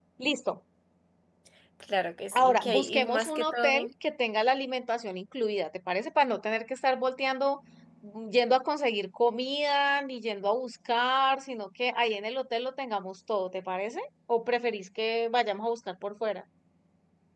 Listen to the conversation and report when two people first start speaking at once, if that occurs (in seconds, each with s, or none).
2.3 s